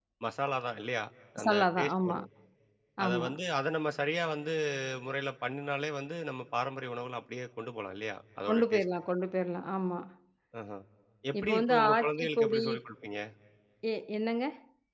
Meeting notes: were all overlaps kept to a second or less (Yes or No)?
No